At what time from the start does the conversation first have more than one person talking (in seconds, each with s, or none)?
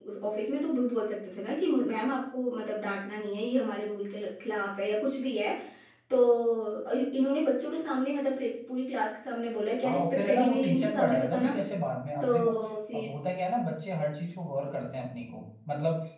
9.9 s